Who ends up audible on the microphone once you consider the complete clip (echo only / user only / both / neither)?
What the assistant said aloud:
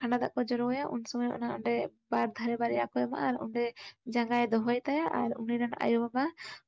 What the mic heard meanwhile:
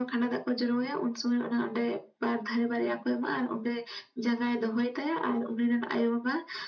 echo only